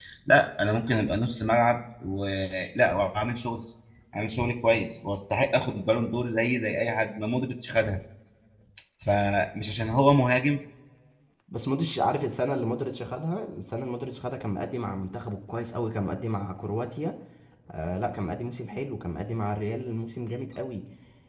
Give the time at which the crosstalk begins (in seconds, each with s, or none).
none